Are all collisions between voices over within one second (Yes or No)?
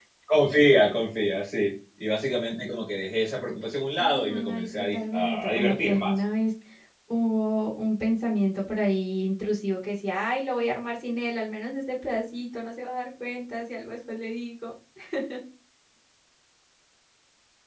No